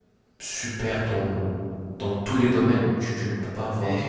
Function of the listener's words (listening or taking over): taking over